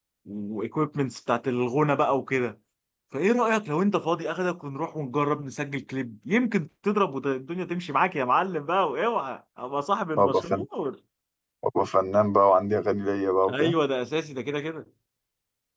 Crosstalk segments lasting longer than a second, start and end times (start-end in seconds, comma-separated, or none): none